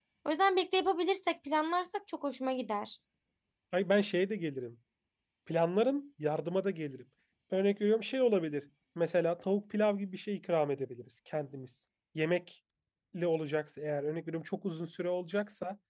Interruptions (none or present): none